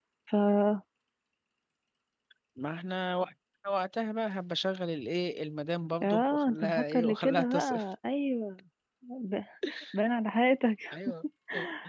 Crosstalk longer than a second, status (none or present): present